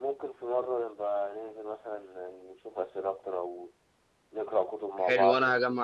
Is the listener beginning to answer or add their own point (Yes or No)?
Yes